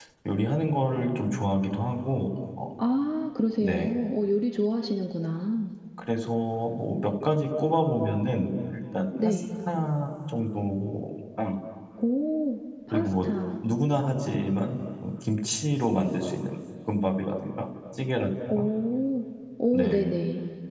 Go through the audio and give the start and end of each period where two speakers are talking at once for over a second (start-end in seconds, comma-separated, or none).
none